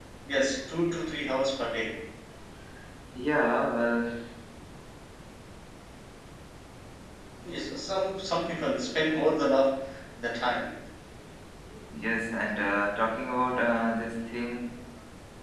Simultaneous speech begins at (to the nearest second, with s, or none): none